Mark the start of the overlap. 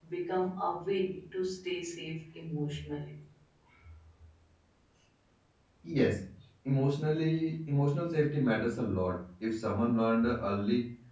none

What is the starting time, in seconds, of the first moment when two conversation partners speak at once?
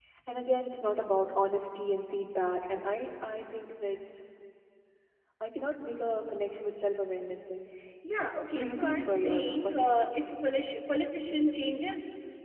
8.6 s

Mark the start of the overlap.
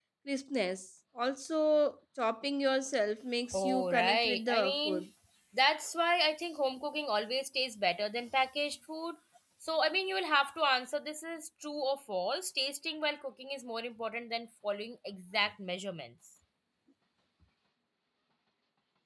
3.5 s

